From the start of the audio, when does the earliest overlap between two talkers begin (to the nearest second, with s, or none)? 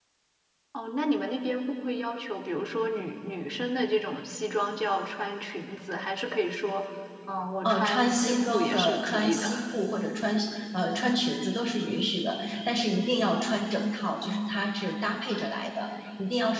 8 s